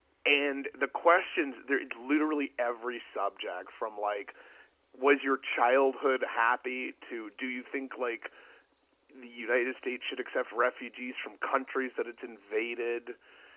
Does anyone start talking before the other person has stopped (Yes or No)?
No